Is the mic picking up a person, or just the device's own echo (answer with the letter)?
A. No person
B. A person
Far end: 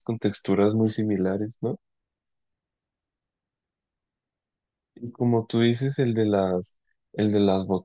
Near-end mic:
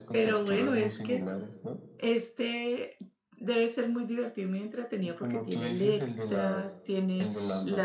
B